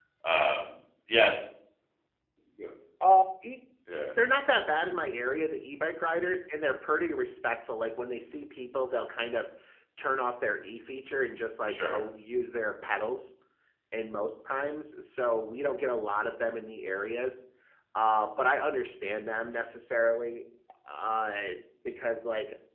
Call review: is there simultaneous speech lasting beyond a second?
No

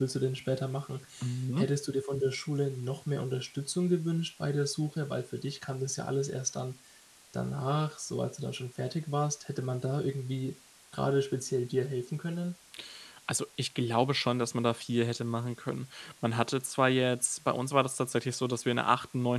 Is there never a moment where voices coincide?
Yes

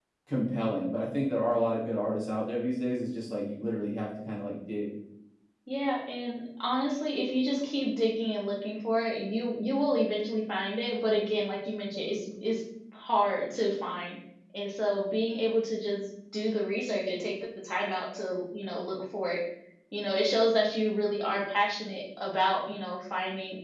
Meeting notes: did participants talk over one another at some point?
No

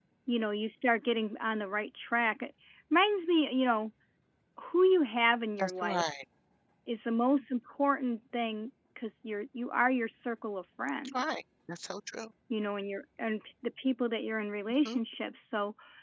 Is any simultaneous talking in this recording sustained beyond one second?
No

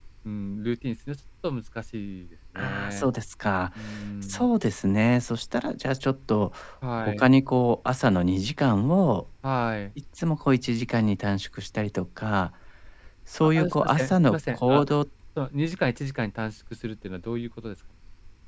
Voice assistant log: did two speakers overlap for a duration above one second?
Yes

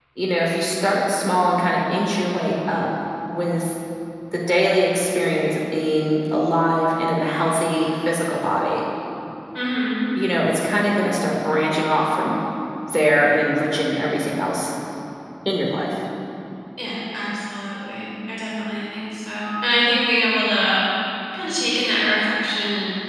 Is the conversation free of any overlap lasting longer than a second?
Yes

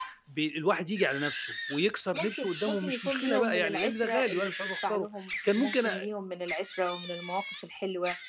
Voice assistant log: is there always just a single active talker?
No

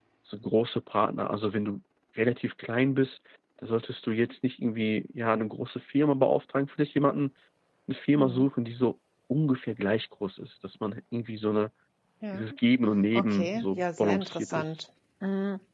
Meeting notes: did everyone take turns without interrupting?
No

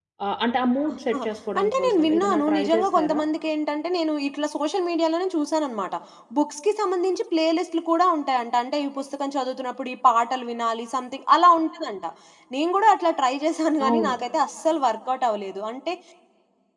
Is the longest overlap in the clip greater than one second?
Yes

